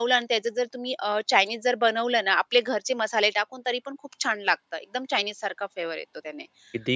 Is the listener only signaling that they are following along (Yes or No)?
Yes